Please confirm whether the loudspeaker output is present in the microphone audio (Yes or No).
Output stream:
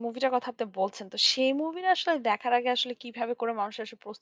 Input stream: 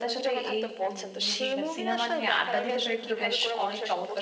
Yes